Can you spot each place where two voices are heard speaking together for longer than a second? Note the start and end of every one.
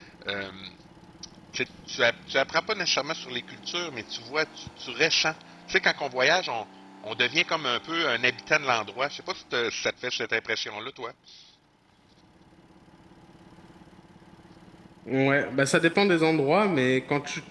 none

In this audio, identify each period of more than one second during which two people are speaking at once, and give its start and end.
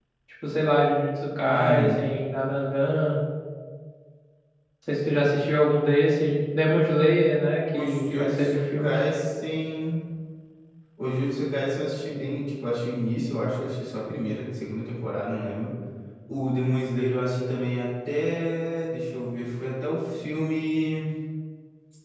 7.7-9.0

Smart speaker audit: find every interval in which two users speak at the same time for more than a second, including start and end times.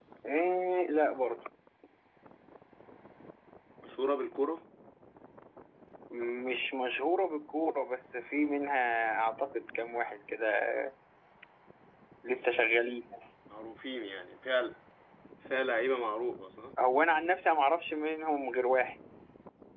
none

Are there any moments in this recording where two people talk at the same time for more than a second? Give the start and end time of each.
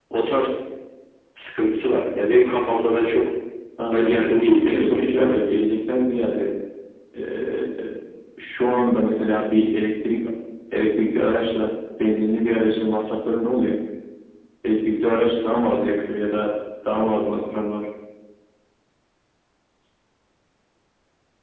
3.9-5.5

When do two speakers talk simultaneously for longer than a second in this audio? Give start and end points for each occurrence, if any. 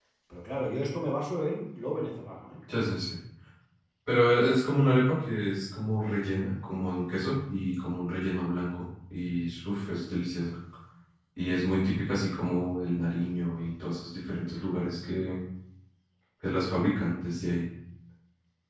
none

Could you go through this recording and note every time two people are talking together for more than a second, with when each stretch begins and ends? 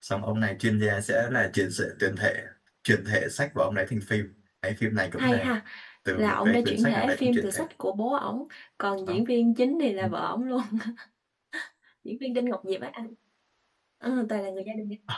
6.1-7.6

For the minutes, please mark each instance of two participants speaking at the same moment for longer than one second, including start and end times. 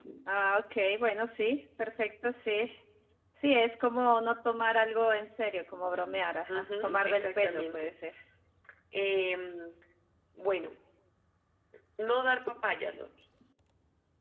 6.5-7.9

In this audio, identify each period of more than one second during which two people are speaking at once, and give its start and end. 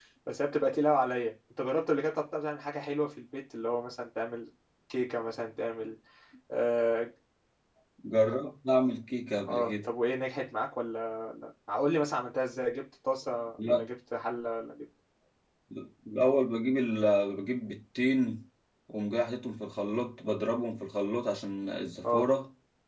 none

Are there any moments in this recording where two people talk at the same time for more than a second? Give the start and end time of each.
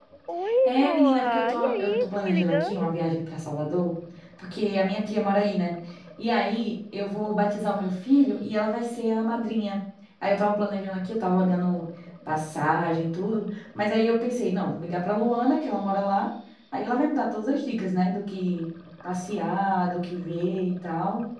0.6-2.9

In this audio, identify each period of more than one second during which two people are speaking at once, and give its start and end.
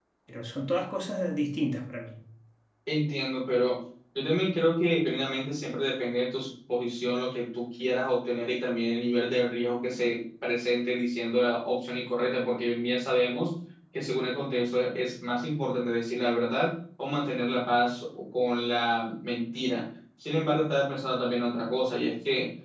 none

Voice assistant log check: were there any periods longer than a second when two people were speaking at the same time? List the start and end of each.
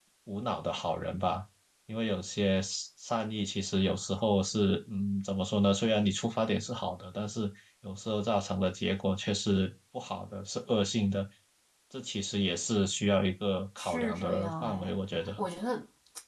13.8-15.0

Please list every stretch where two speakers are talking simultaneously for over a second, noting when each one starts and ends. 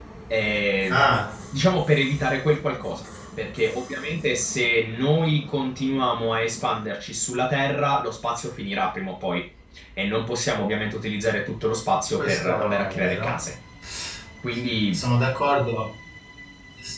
12.1-13.5

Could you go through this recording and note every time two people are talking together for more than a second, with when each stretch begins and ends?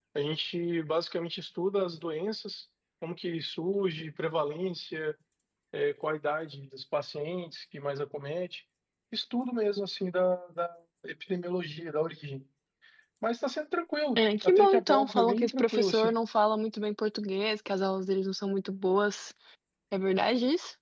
14.2-16.1

